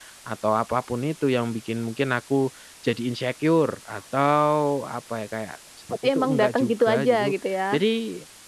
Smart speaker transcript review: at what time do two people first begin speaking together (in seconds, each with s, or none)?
6.0 s